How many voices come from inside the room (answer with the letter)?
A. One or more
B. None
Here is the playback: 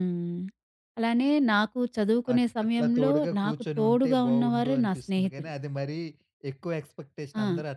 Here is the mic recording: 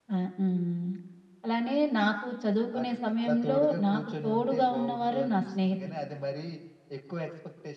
B